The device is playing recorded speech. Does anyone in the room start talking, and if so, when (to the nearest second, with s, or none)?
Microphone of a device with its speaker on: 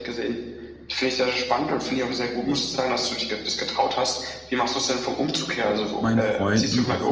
6 s